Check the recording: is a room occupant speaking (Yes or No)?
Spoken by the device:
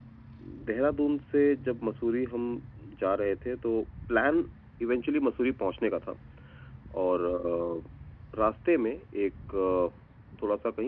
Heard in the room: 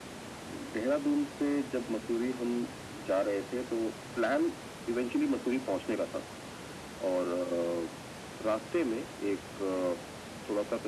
No